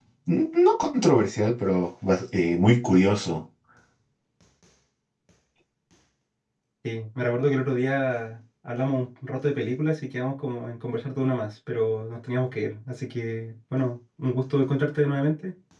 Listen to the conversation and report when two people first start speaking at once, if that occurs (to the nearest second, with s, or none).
none